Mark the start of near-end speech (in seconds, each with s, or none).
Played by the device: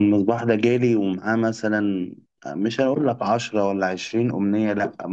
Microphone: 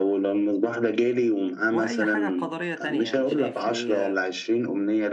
1.7 s